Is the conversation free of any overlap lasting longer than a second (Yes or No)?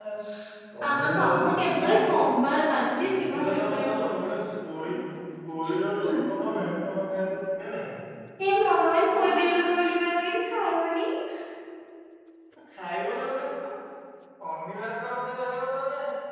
No